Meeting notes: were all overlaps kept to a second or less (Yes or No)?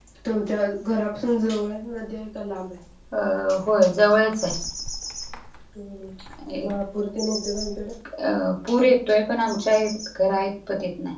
Yes